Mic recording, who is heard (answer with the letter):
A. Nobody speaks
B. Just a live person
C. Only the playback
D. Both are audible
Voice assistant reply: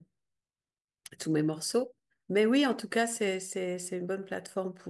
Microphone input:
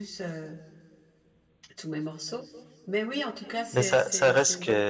D